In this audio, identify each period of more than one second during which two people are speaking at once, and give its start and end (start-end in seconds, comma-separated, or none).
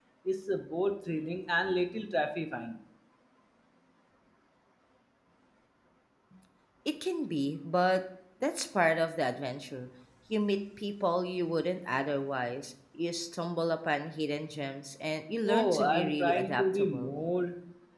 15.4-17.1